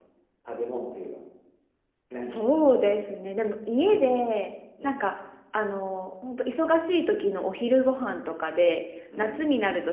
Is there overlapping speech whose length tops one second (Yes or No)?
No